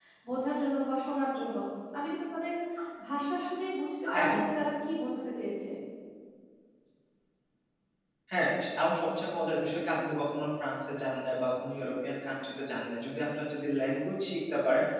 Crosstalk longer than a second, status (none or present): none